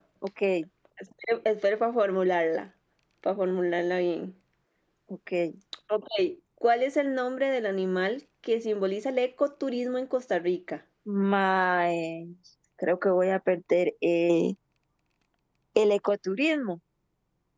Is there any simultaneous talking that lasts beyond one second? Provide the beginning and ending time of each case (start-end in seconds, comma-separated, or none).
none